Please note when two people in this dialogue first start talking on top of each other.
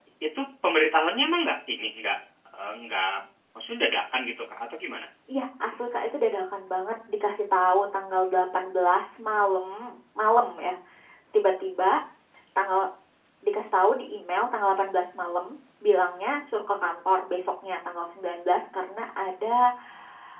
none

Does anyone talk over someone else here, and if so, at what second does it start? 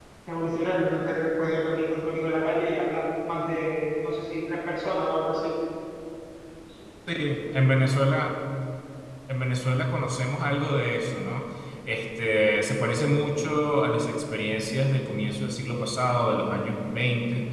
none

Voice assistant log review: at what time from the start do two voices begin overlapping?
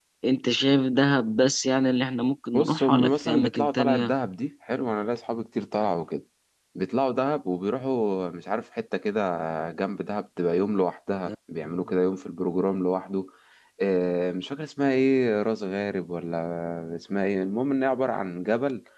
2.5 s

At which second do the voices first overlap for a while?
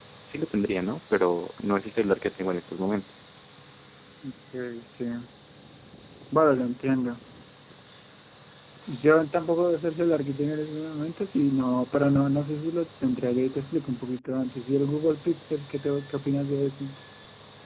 none

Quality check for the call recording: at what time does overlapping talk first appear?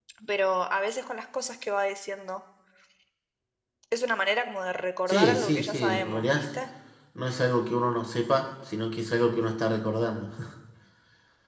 5.1 s

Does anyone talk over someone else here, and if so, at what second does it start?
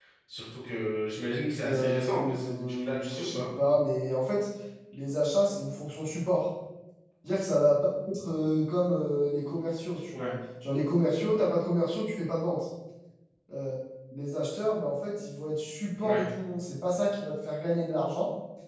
1.6 s

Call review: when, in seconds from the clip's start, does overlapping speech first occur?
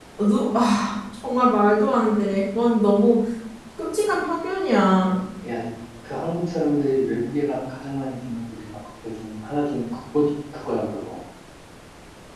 none

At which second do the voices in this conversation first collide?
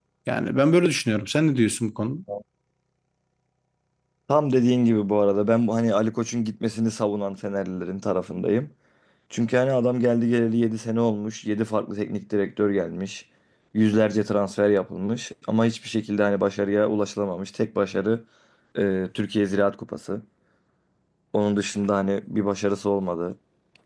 none

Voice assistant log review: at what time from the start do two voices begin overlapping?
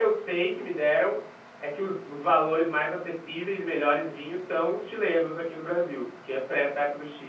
none

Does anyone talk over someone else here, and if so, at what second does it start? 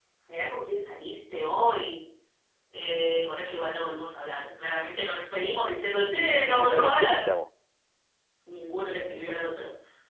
6.0 s

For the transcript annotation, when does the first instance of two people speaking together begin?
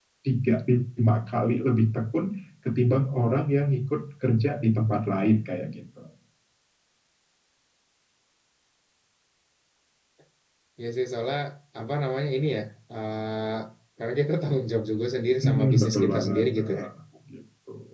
15.4 s

